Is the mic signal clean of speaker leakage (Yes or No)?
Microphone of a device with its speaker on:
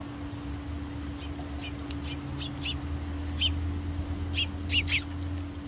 Yes